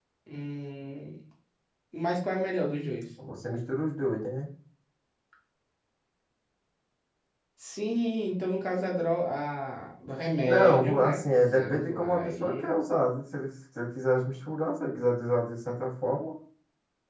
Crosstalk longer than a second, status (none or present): present